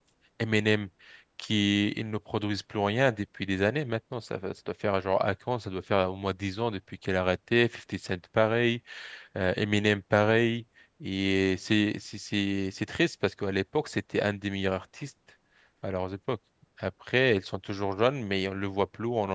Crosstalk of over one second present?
No

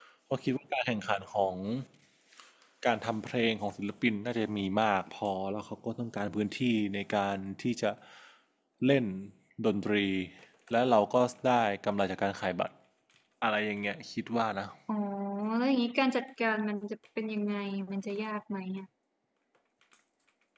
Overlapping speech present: No

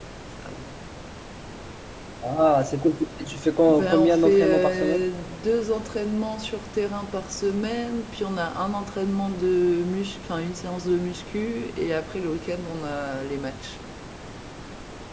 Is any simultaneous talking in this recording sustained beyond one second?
Yes, from 3.7 s

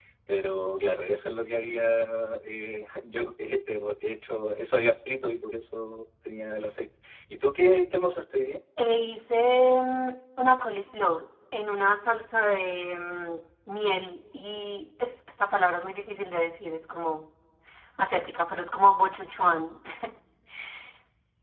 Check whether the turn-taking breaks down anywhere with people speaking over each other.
No

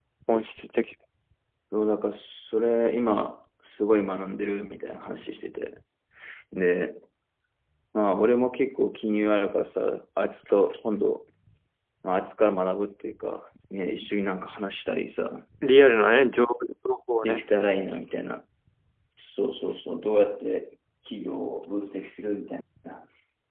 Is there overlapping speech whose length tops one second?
No

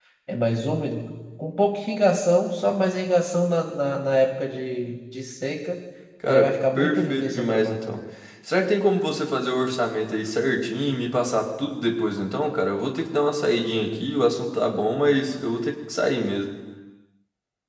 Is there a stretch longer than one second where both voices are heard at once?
Yes, from 6.2 s

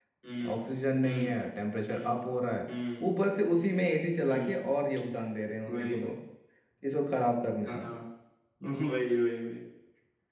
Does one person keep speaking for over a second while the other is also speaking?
No

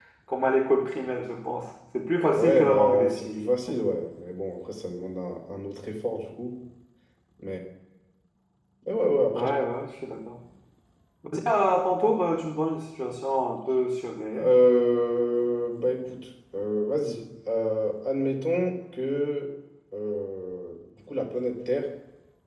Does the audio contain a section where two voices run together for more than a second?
Yes, from 2.3 s

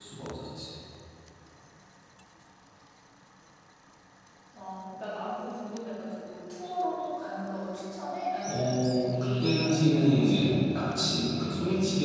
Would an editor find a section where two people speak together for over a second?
Yes, from 8.4 s

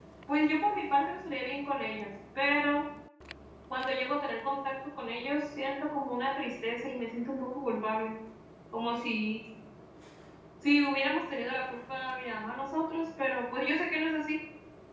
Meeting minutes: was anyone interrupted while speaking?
No

